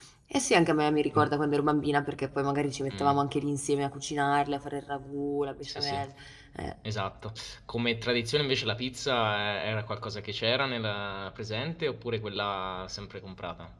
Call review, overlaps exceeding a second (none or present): none